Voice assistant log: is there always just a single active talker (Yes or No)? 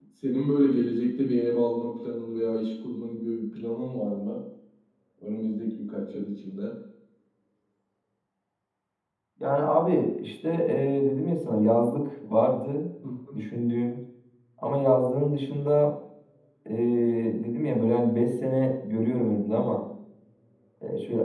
Yes